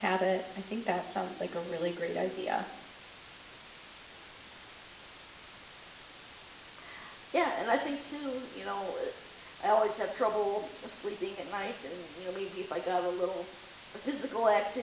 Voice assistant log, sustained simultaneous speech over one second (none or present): none